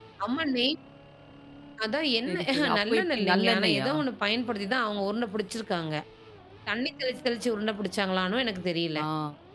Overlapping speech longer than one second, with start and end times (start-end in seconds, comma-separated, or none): 2.3-3.9